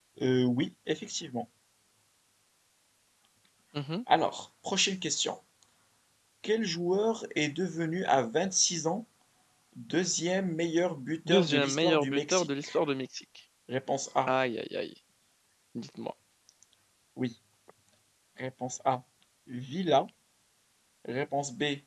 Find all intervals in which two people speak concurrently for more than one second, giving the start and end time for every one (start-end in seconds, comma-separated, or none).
11.3-12.7